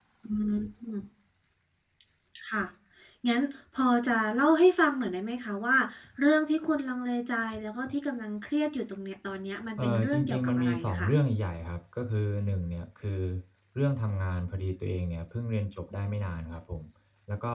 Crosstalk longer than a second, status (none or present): present